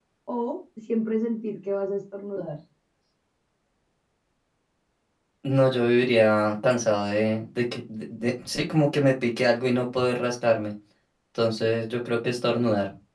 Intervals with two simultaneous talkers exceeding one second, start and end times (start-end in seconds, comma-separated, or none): none